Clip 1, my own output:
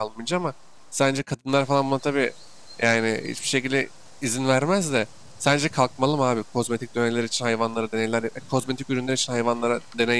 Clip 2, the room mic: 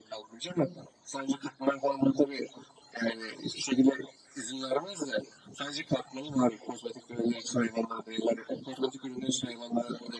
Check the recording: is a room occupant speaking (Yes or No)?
No